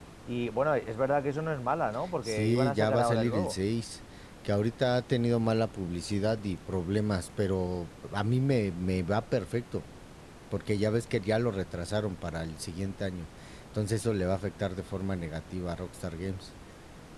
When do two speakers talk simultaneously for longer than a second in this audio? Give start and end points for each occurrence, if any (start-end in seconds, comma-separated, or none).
2.2-3.6